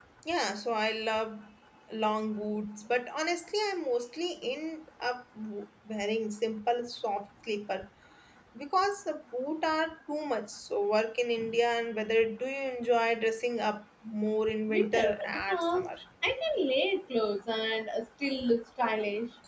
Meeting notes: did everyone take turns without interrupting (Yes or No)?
No